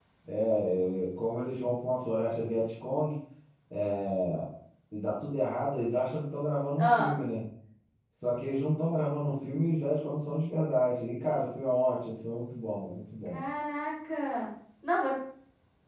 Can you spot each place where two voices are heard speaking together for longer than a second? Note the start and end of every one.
none

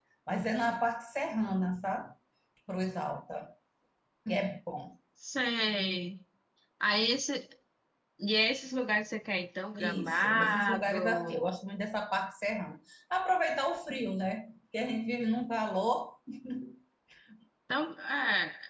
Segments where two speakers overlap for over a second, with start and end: 9.8-11.4

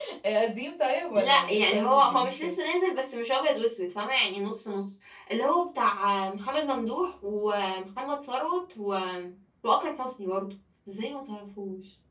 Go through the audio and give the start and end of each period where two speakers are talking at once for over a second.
1.2-2.5

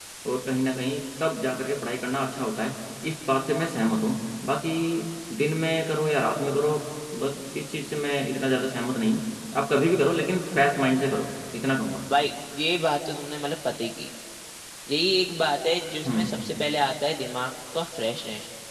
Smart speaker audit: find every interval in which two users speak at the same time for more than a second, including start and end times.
none

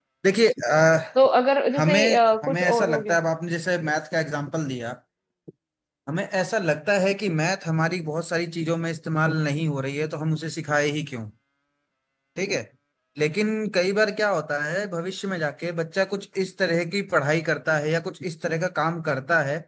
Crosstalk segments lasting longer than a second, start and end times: 1.8-3.2

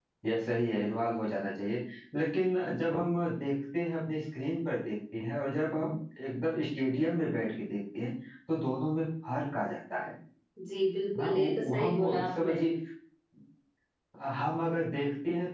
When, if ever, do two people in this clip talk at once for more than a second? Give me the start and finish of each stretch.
11.2-12.6

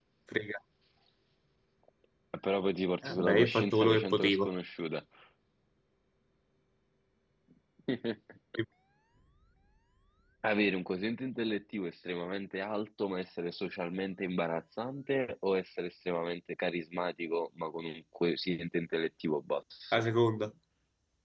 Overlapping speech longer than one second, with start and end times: 3.0-4.5

